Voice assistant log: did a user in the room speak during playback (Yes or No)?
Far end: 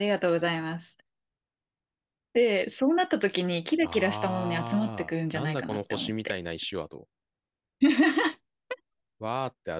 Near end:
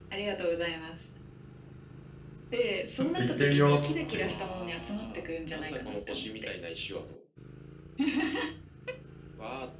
Yes